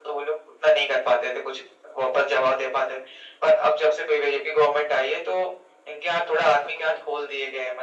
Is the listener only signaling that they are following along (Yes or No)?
Yes